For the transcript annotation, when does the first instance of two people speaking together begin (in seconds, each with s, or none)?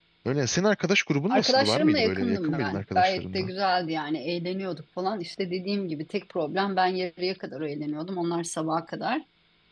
1.3 s